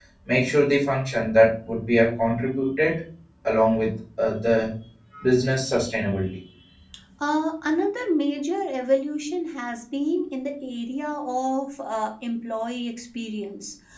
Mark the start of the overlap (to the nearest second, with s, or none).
none